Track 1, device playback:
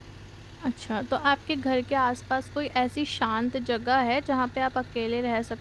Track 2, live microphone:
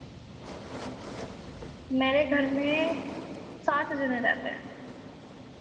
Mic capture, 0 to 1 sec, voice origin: neither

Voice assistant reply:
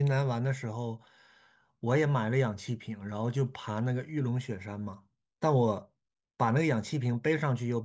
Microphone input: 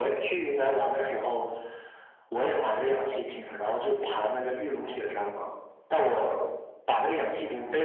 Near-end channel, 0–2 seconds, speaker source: echo only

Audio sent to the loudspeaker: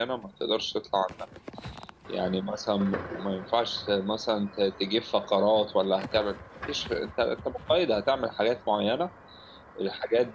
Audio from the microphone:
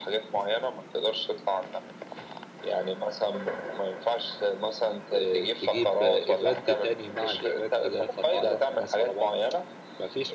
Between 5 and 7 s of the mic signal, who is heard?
both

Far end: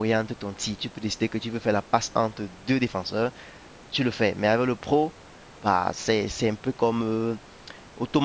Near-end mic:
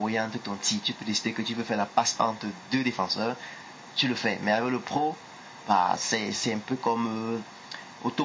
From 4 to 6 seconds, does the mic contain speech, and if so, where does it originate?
echo only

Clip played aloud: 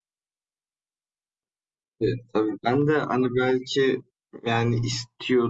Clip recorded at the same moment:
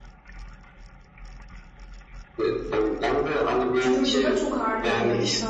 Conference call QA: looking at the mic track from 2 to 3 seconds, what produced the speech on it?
echo only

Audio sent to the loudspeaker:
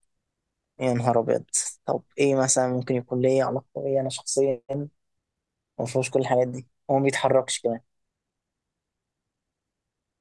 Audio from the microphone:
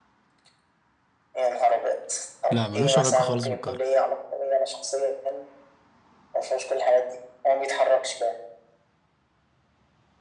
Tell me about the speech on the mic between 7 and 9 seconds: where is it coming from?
echo only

